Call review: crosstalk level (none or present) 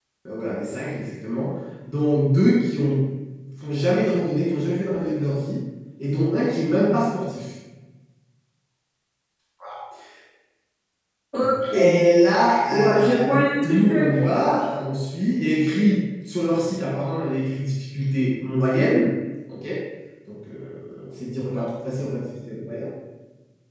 present